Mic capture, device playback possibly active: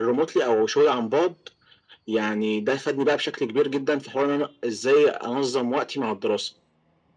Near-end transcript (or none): none